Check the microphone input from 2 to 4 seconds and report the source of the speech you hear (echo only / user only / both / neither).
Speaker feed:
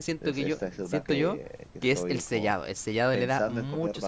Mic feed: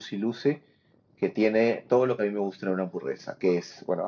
user only